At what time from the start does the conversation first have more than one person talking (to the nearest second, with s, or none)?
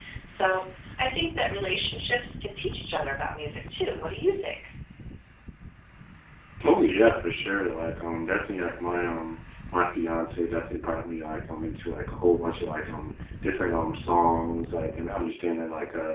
none